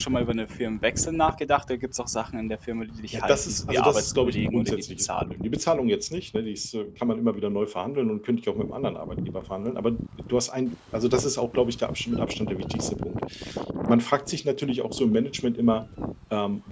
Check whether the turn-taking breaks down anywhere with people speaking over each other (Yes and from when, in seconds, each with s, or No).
Yes, from 3.1 s